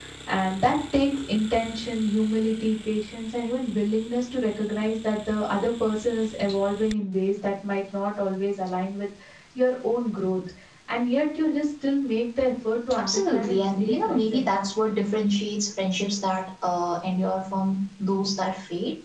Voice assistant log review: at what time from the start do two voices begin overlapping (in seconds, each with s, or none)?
12.9 s